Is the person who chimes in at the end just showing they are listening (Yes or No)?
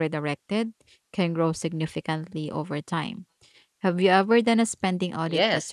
No